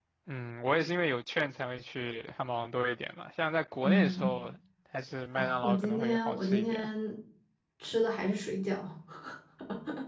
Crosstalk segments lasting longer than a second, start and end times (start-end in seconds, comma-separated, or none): 5.4-6.9